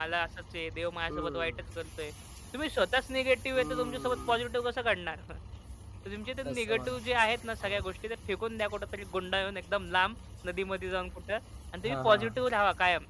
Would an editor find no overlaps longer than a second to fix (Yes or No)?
No